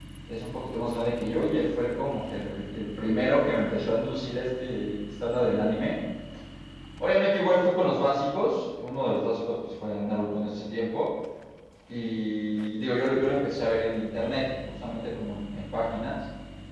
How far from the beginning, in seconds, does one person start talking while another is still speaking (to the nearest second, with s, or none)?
none